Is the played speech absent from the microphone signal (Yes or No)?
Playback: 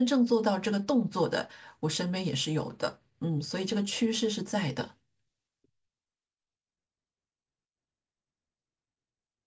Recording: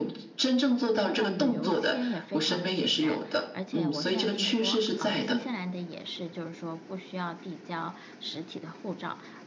No